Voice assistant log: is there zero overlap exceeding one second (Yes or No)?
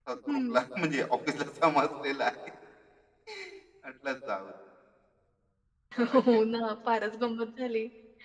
Yes